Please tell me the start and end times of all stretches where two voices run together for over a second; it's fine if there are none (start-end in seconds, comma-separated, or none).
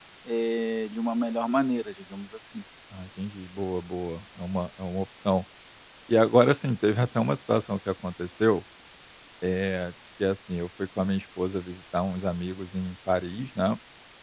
none